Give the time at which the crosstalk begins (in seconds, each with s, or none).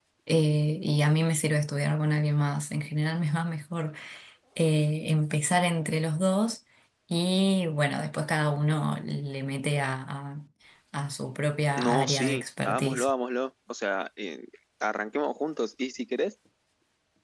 11.8 s